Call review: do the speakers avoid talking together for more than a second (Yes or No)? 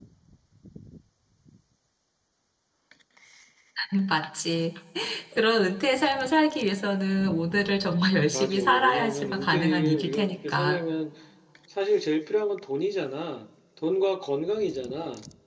No